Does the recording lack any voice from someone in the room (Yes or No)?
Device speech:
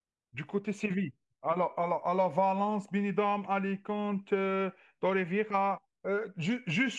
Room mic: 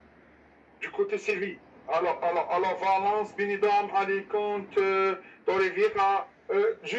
Yes